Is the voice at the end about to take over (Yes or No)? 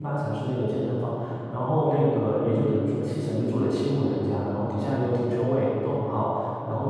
No